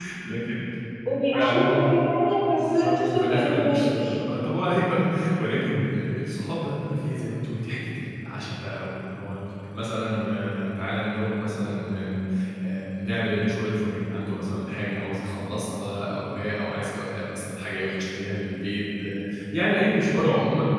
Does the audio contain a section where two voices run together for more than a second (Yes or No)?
Yes